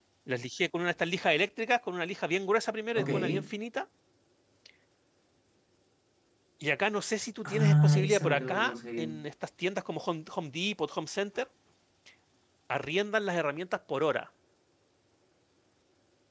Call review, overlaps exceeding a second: present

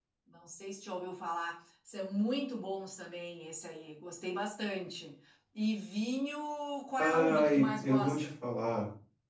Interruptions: present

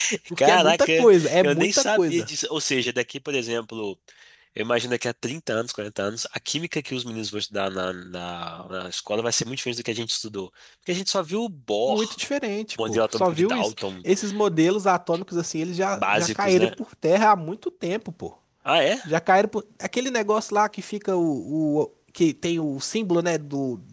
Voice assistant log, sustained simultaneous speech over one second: present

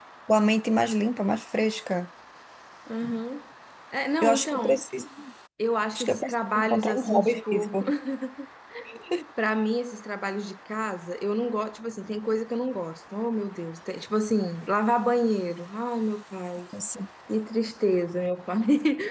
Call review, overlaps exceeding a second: present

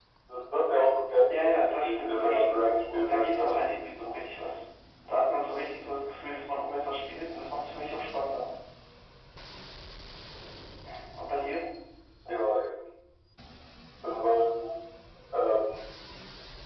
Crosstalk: present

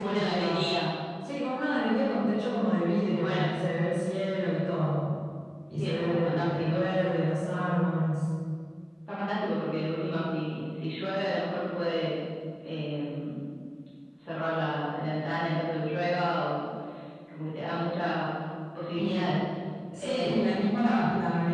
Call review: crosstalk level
present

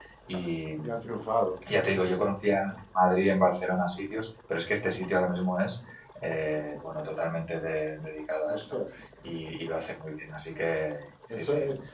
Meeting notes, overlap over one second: none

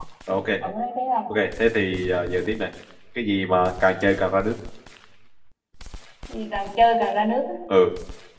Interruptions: none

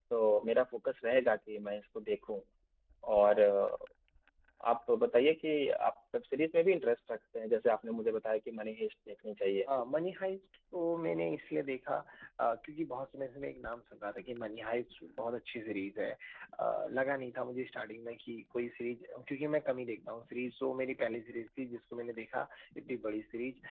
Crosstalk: none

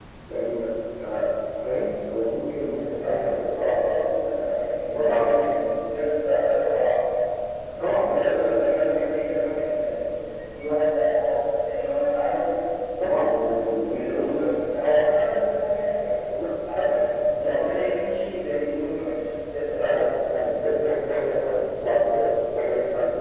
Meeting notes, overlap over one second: present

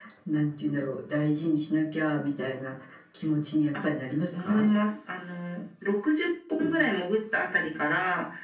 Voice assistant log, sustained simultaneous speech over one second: none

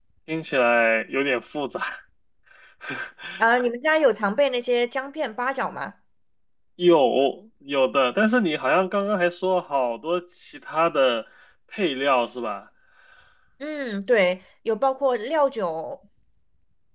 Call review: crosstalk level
none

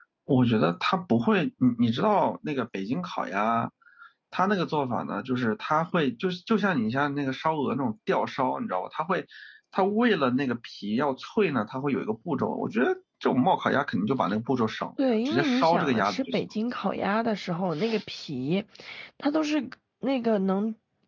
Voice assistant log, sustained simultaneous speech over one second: present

